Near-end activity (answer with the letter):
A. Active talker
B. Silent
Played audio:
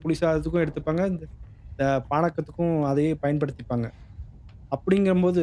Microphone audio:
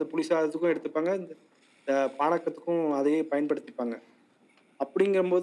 B